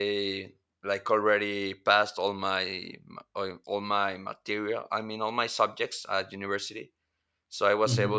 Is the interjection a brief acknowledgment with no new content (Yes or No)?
Yes